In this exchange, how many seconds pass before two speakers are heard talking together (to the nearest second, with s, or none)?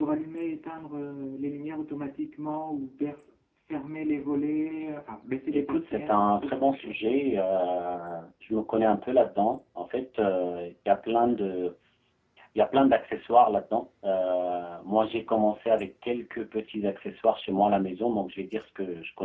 6 s